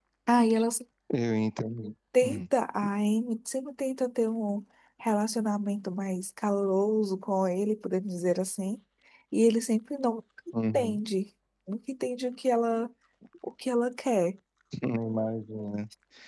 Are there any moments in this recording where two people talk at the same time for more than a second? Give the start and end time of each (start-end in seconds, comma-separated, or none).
none